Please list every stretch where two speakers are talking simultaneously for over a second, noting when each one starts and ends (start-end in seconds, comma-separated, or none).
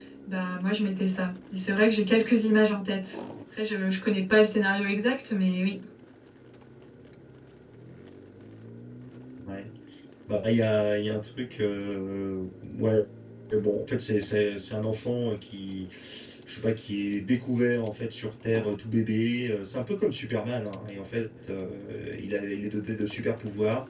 none